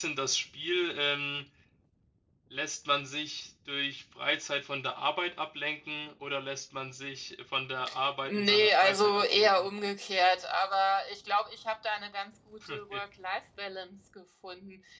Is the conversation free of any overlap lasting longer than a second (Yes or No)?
No